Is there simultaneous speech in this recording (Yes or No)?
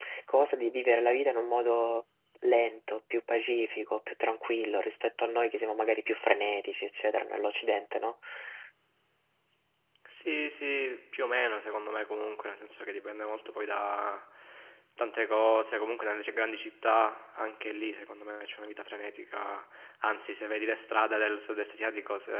No